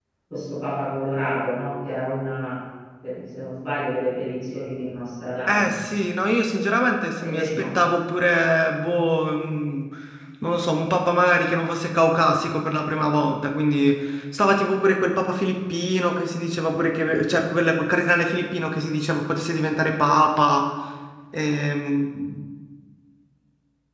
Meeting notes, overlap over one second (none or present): none